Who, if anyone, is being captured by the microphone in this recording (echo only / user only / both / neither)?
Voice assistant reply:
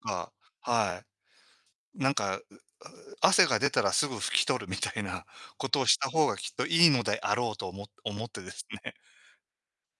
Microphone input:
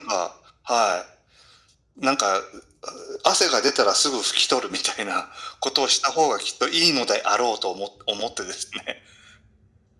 echo only